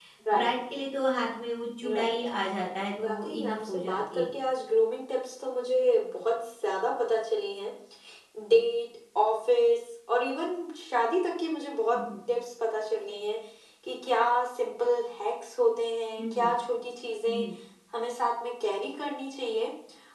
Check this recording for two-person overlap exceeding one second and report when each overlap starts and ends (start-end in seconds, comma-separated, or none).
3.0-4.2